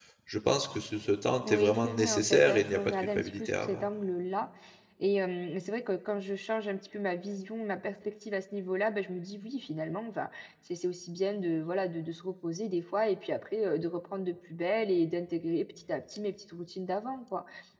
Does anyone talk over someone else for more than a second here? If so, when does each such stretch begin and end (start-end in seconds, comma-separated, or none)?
1.4-3.8